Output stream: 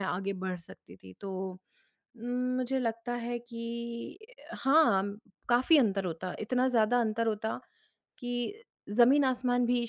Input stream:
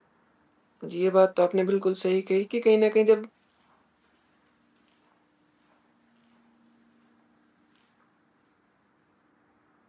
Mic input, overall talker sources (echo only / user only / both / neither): user only